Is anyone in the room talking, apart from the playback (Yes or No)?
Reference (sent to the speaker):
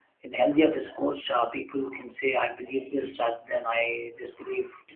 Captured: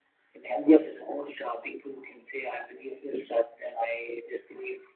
No